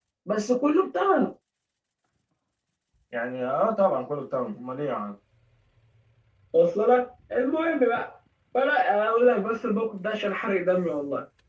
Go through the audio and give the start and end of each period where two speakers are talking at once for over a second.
none

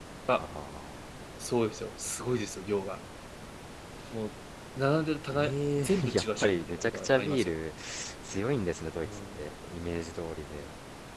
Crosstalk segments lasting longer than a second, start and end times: 5.3-7.5

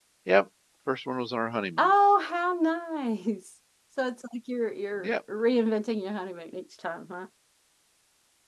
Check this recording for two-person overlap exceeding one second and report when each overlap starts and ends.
none

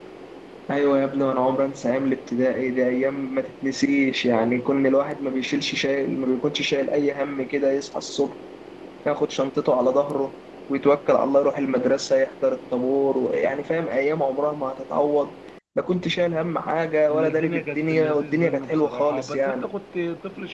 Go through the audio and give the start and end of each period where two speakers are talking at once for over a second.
17.1-19.6

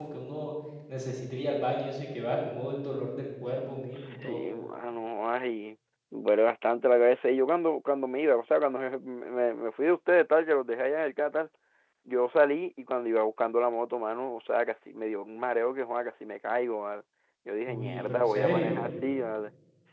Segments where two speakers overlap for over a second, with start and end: 17.7-18.9

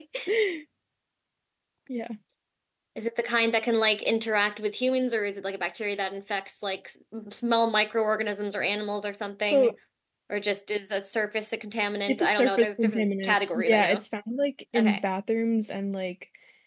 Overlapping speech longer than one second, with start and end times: 12.1-14.0

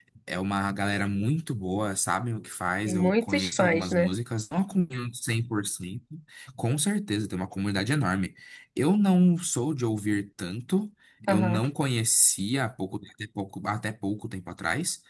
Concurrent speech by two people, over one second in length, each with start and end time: 2.9-4.1

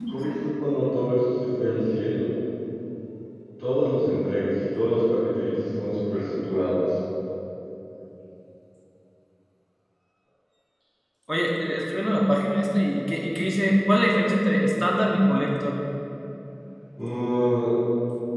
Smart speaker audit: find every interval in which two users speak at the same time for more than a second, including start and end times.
none

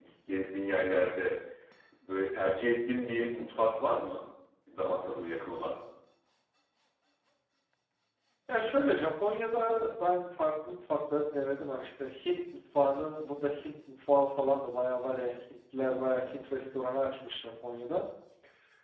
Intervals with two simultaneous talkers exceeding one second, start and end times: none

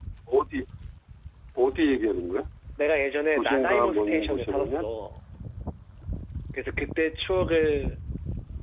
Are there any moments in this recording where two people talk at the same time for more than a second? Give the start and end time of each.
3.4-4.8

